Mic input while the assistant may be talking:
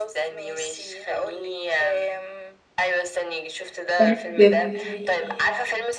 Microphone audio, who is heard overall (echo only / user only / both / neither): both